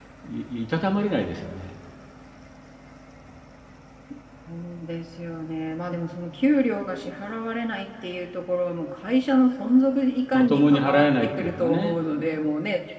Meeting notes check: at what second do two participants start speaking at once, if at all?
10 s

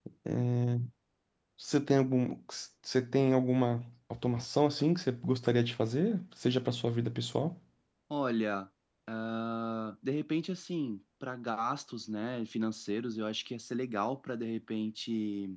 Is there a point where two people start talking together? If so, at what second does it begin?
none

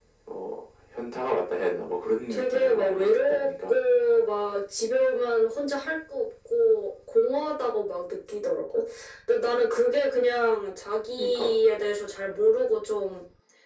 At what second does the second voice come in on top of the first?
2 s

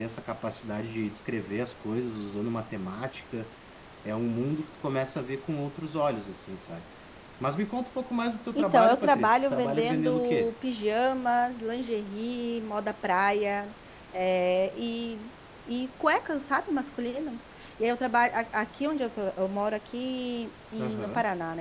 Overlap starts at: 9 s

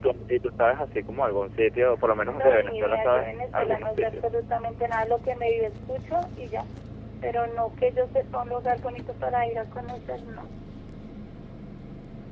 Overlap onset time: 2 s

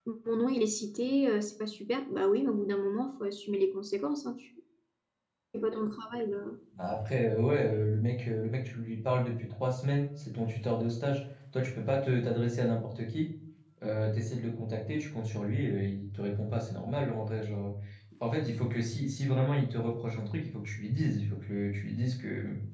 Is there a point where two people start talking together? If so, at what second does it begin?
none

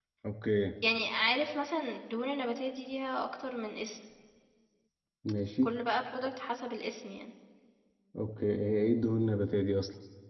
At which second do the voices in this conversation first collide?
none

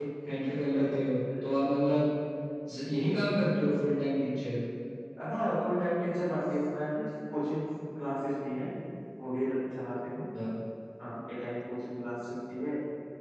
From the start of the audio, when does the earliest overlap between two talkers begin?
none

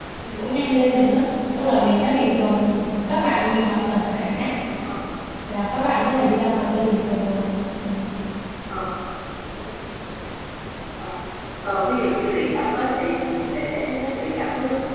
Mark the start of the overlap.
none

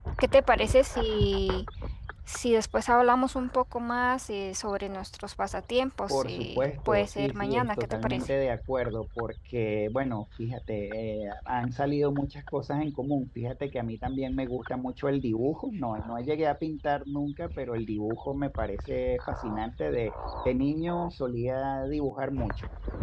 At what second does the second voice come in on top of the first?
6 s

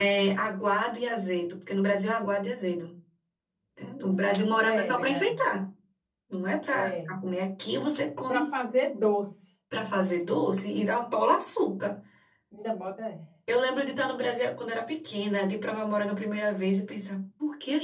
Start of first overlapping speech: 4 s

